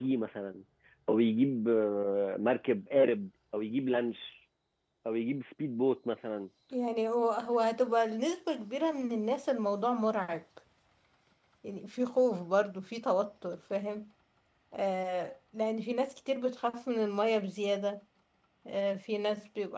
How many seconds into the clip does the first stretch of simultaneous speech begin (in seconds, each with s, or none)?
none